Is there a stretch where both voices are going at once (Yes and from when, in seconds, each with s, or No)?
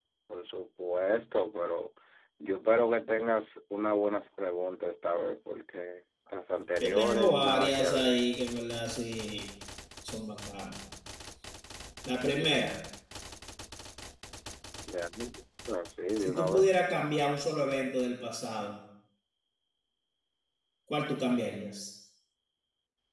Yes, from 6.8 s